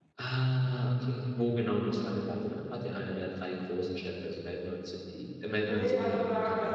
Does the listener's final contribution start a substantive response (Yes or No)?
Yes